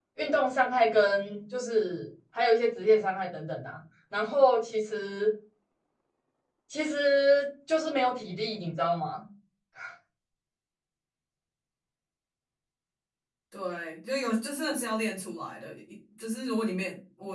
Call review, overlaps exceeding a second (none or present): none